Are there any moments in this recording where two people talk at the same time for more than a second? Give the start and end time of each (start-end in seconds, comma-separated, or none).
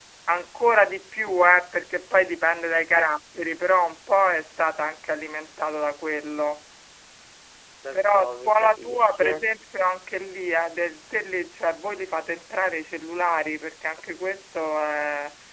7.9-9.2